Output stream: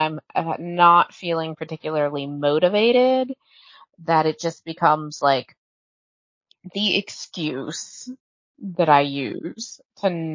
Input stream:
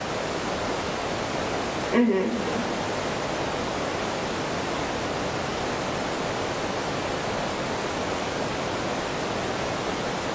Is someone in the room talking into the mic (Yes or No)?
Yes